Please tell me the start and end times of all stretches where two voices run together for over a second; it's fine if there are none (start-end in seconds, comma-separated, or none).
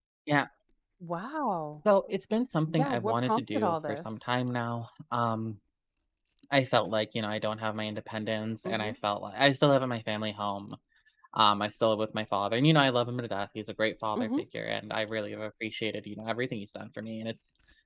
2.7-4.3